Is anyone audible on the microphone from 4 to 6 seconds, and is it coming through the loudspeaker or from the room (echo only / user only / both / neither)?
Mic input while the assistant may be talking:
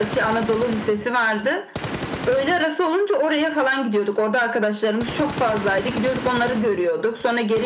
echo only